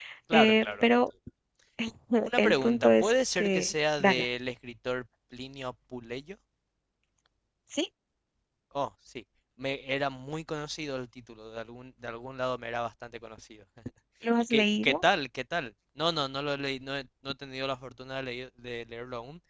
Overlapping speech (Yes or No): Yes